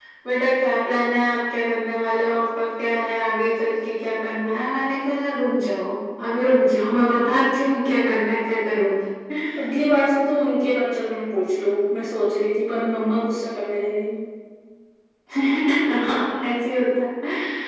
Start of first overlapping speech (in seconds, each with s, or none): none